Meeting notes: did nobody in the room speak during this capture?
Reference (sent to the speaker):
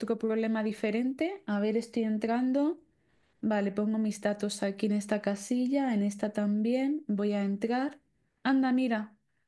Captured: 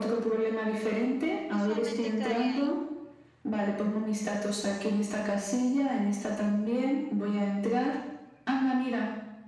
No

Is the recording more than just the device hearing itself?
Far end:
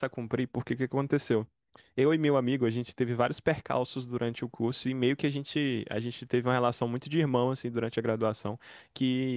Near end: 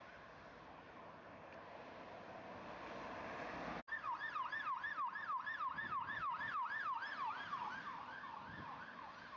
No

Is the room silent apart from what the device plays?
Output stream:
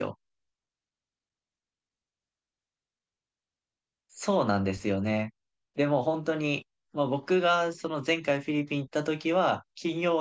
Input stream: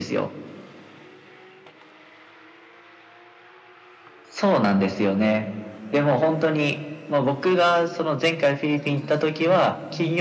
No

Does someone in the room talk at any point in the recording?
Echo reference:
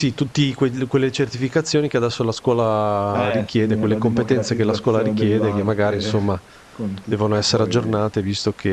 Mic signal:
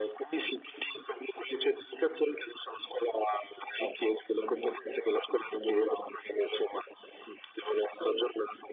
No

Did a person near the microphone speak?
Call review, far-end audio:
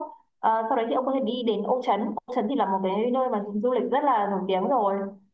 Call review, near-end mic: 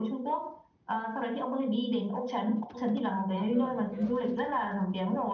Yes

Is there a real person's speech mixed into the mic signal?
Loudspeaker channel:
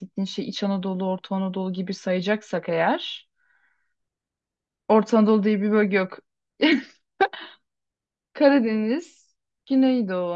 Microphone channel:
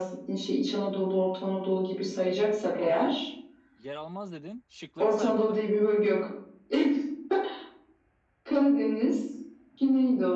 Yes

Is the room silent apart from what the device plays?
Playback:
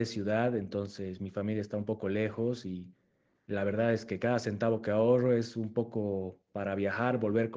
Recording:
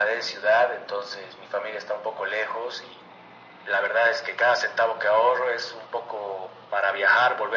Yes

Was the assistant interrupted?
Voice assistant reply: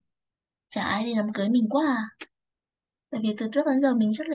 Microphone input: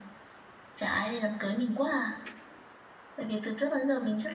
No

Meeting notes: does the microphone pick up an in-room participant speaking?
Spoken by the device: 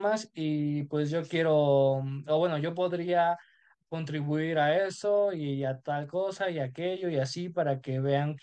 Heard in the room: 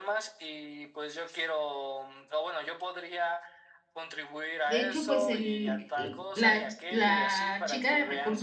Yes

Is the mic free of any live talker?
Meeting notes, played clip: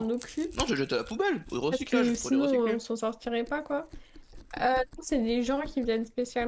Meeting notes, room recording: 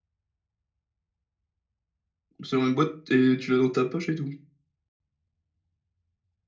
No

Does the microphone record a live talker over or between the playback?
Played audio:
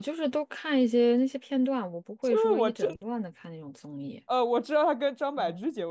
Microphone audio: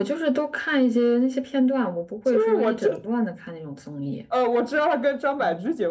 No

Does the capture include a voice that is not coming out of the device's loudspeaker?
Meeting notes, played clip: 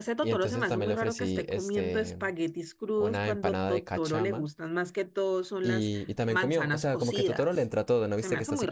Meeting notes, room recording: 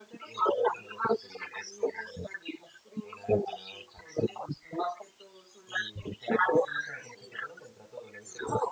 No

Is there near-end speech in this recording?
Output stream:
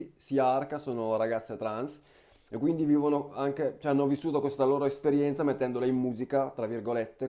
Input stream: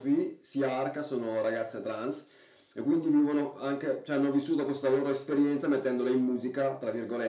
No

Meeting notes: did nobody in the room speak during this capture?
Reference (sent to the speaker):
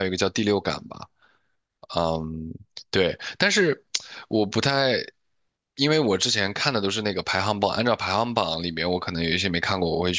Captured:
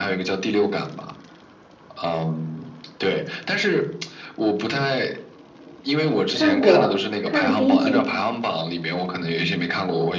No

